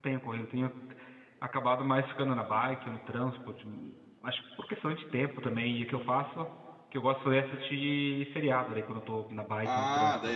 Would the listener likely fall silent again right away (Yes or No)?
No